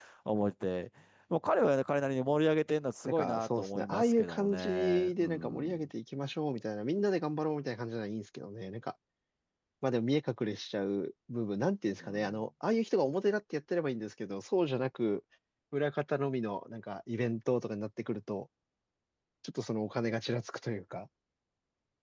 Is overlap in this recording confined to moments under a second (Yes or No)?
No